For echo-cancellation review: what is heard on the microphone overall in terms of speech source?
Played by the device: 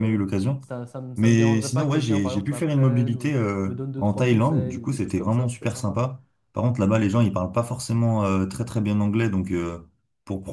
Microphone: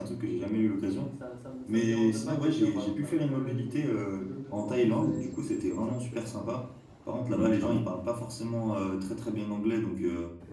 both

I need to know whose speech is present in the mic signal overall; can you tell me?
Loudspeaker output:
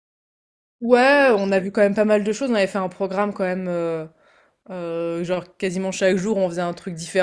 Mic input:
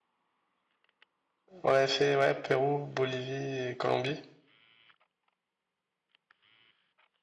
user only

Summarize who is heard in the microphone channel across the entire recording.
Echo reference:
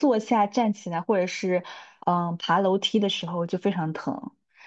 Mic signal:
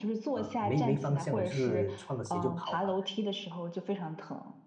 both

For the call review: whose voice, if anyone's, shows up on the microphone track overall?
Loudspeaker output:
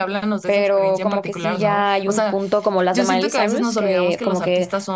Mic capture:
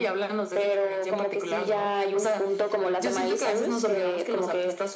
echo only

